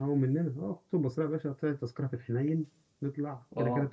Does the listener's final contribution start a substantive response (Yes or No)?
No